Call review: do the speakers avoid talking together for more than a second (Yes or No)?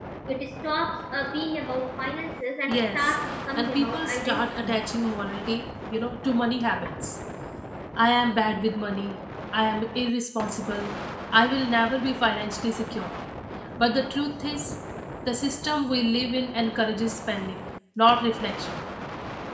No